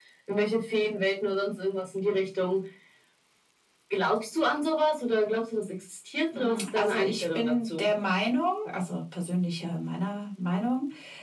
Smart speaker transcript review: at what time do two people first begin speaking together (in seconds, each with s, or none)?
6.3 s